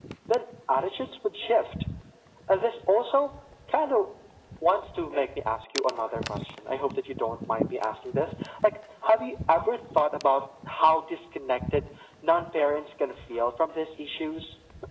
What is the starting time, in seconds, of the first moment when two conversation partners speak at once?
none

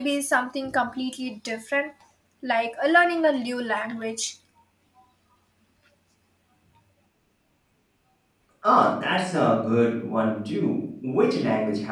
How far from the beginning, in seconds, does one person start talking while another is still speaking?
none

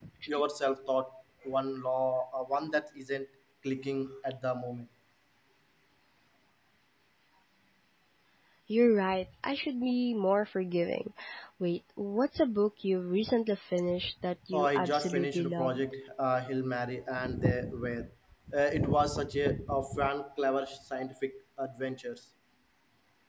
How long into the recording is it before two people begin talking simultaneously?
15 s

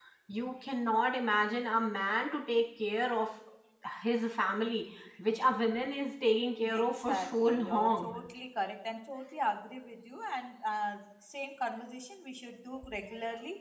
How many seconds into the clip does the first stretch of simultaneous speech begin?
7 s

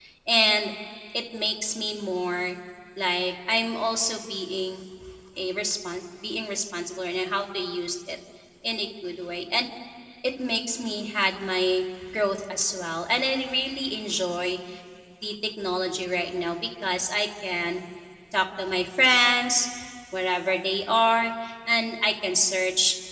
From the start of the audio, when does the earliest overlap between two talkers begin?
none

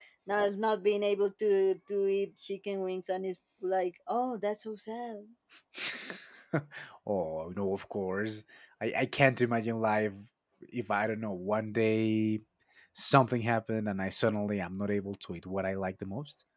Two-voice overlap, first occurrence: none

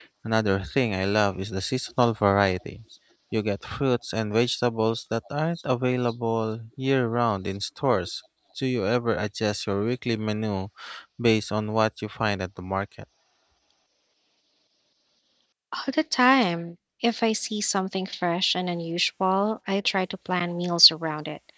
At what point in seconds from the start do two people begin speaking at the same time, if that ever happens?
none

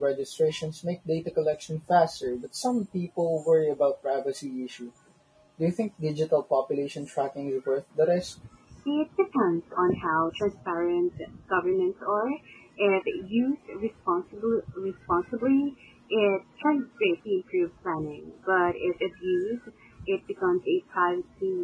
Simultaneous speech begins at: none

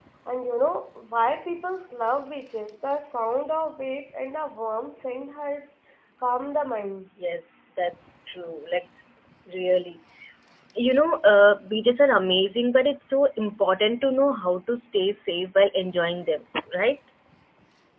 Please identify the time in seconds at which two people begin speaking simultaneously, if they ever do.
none

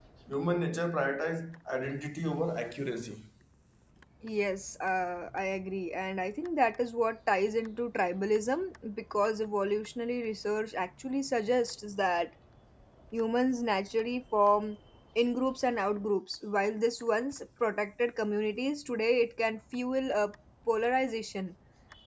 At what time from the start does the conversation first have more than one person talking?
none

